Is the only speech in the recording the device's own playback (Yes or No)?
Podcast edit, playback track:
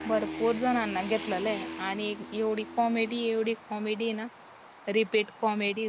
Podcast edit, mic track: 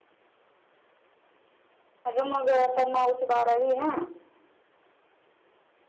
No